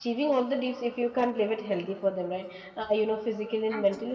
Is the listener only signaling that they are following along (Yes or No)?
Yes